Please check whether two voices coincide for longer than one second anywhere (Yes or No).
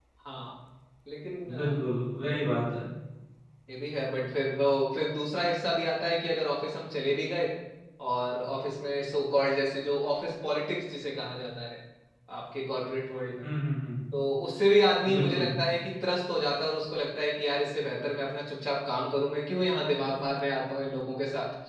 No